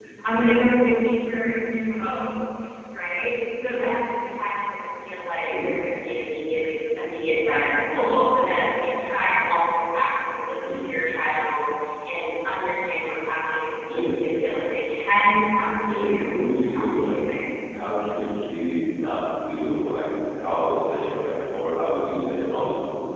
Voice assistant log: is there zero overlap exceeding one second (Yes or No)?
No